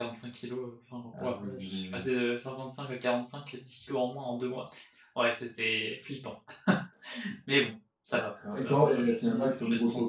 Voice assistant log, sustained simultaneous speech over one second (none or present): present